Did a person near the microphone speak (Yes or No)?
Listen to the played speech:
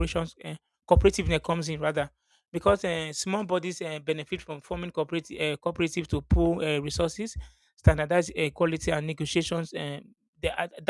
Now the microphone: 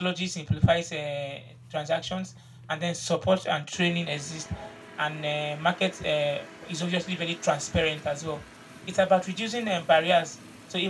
Yes